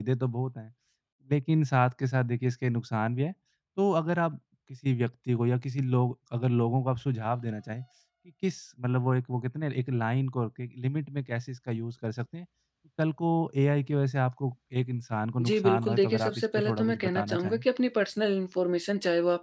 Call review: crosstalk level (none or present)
present